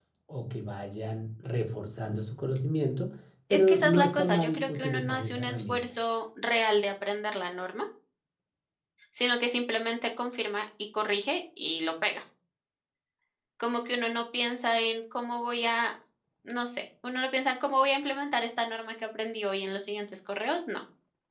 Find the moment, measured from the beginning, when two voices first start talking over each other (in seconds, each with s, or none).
3.5 s